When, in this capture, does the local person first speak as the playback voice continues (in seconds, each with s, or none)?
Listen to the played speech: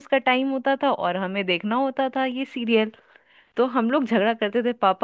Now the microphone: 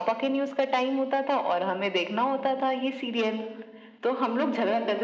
none